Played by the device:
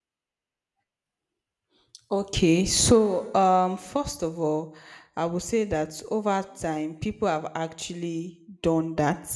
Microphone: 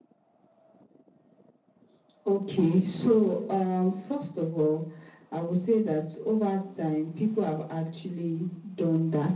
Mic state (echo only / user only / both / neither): echo only